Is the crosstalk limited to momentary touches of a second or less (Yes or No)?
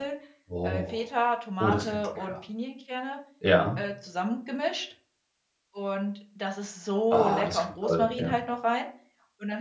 No